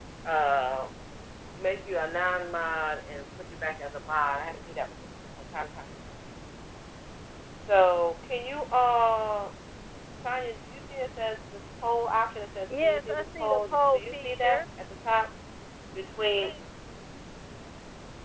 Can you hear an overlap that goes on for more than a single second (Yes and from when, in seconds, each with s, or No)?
Yes, from 12.7 s